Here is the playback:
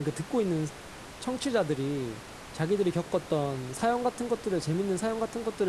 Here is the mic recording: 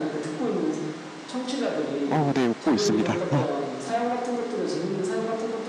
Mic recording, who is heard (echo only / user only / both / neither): both